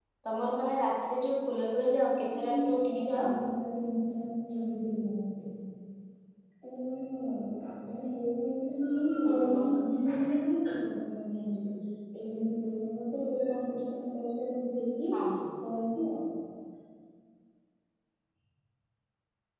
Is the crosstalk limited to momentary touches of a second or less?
No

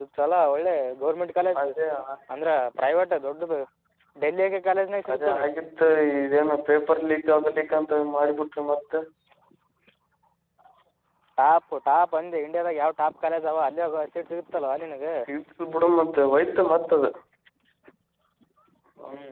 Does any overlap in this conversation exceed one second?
No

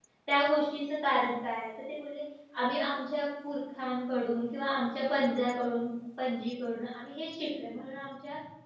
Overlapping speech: No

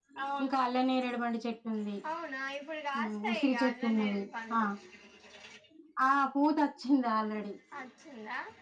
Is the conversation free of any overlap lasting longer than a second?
No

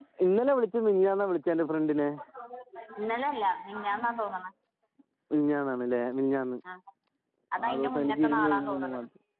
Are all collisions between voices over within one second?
No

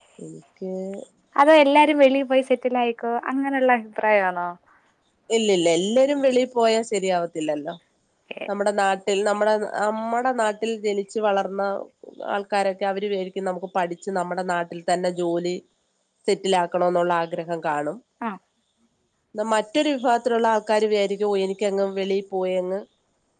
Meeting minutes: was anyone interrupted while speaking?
No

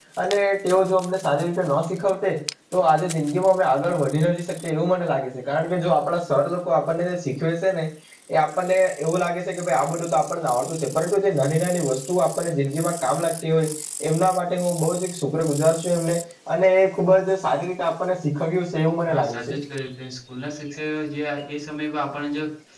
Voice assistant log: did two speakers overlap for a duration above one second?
No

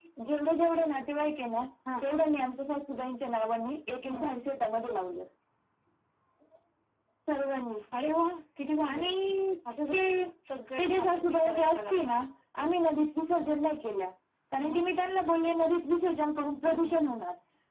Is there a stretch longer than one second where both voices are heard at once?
Yes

